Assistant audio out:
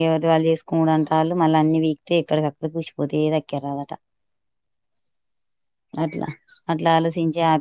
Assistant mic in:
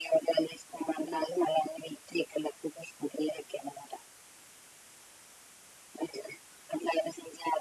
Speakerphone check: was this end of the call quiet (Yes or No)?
No